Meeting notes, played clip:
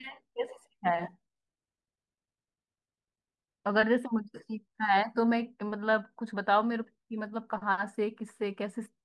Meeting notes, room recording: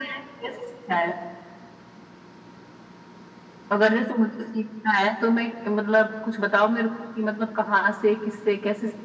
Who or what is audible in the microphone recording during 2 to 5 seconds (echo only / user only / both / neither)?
echo only